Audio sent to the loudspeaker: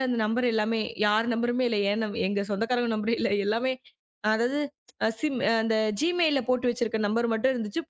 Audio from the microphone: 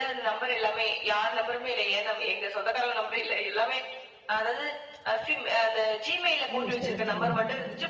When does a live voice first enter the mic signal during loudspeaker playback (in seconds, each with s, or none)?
6.5 s